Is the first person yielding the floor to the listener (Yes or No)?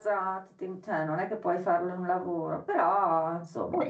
Yes